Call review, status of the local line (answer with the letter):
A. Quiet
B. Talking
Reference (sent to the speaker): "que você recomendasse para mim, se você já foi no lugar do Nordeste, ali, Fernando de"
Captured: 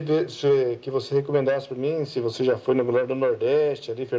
A